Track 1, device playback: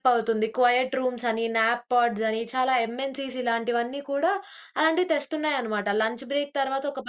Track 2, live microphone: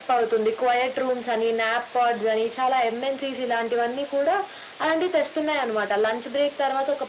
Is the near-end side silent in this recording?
Yes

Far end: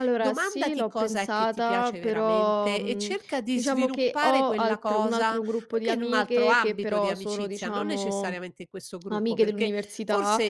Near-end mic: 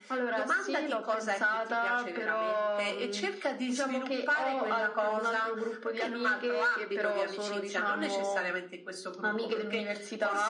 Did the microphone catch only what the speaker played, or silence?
Yes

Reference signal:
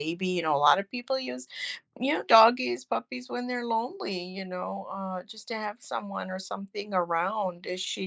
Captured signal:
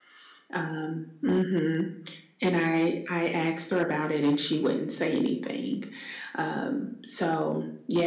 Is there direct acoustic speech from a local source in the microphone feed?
Yes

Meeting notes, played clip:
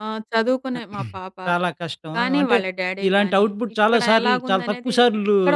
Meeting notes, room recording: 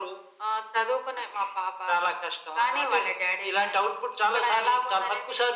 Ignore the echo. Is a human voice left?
No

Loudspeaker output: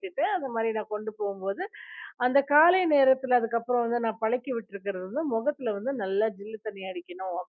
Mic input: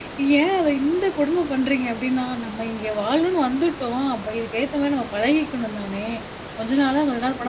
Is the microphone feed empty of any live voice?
No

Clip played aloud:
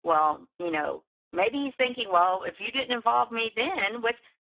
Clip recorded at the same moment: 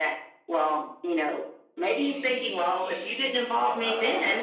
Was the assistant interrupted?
Yes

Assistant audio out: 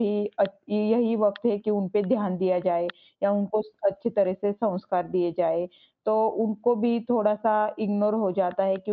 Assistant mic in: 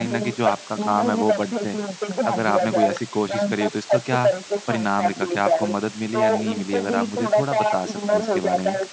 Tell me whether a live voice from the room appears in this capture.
Yes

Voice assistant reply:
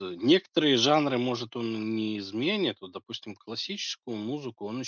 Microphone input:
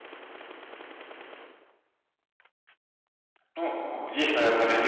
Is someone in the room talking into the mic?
Yes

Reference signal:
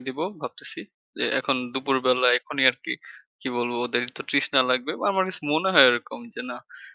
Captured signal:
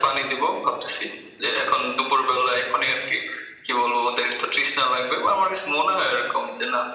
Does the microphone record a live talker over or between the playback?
No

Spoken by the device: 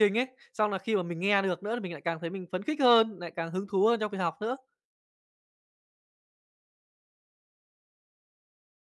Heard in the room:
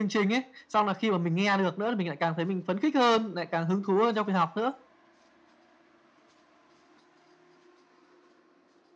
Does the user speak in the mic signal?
No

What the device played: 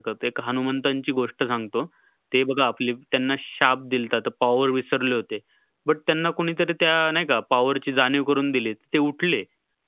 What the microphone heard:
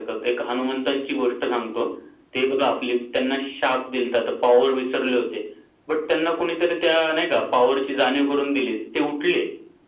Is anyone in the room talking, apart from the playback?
No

